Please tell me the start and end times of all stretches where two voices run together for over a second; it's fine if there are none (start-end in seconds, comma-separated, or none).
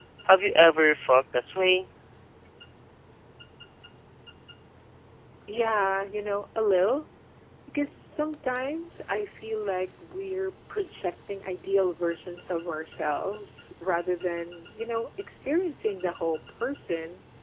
none